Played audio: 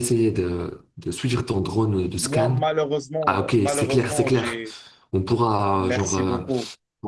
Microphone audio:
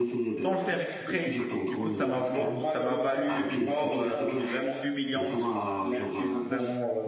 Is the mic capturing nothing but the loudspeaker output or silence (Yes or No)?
No